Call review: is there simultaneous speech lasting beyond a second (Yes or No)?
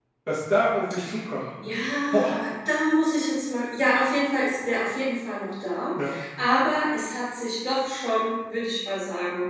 No